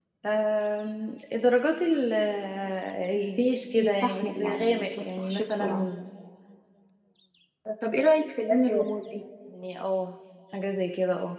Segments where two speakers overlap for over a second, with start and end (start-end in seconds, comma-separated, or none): 3.8-5.7